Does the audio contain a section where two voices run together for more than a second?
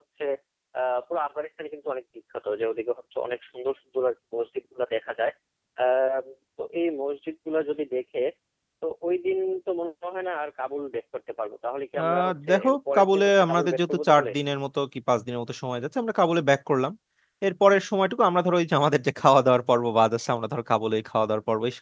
Yes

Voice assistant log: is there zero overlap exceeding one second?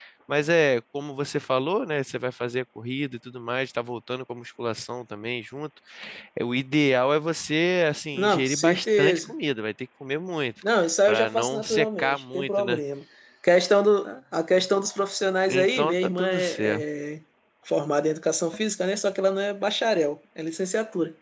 No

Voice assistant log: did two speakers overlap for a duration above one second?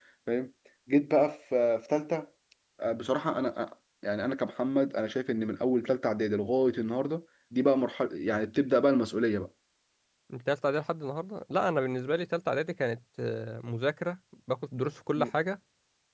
No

